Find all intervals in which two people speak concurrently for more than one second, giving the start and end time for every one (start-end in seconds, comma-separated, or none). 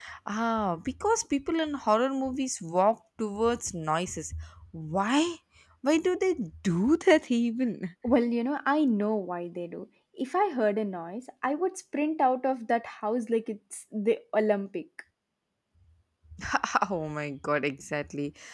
none